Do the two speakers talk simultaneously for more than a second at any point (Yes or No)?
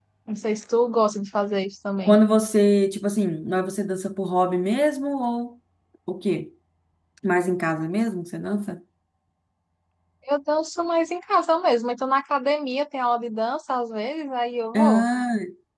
No